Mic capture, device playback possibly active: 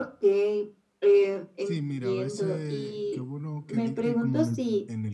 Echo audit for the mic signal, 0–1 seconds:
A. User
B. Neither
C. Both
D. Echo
D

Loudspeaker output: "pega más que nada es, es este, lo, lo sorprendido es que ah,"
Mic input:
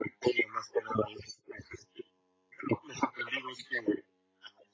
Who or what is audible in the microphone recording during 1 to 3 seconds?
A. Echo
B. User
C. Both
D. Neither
A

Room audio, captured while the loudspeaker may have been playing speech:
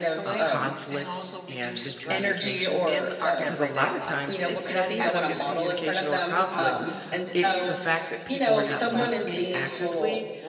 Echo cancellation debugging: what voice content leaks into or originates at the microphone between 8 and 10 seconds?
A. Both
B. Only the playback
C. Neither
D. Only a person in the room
A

